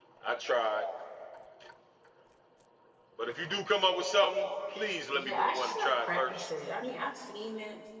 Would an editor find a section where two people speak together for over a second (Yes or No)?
Yes